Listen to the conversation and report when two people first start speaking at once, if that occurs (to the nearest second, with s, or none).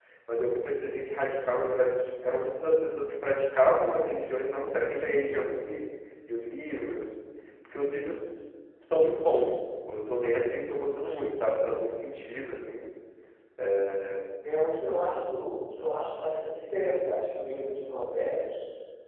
none